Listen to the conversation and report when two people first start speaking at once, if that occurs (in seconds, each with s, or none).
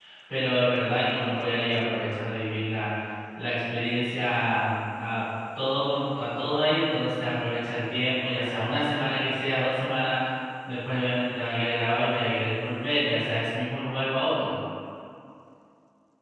none